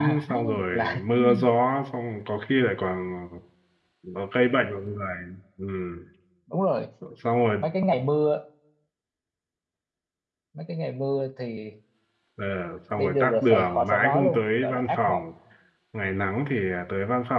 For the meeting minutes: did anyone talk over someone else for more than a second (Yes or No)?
Yes